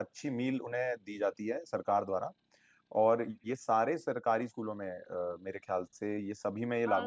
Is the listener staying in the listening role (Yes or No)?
No